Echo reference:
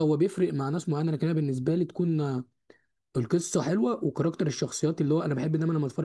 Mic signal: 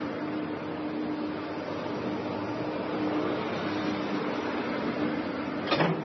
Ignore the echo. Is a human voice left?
No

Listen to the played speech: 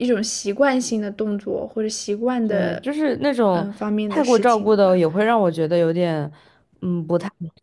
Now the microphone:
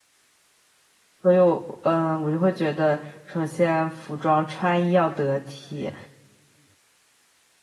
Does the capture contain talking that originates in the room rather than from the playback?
Yes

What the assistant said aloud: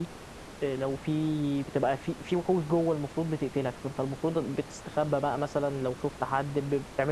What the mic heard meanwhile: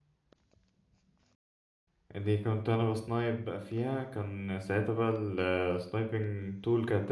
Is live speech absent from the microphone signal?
No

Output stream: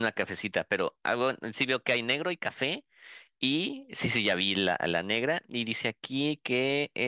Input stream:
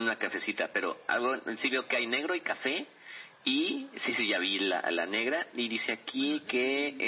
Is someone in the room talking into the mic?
Yes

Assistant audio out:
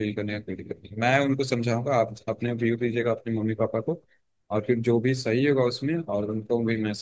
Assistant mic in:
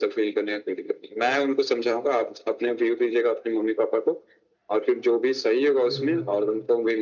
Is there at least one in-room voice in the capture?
Yes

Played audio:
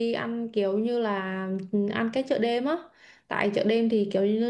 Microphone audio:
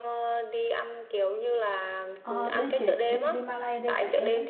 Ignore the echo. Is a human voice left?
Yes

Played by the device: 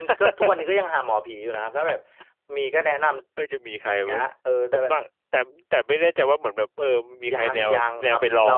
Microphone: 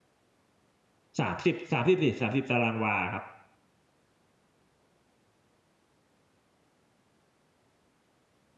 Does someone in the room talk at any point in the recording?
Yes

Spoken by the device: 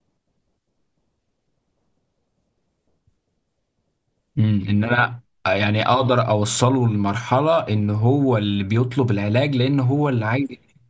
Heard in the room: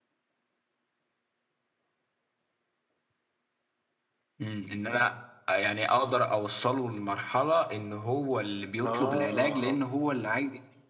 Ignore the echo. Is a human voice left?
Yes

